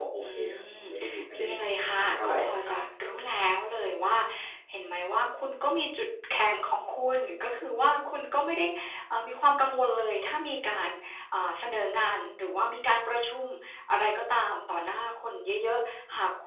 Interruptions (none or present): present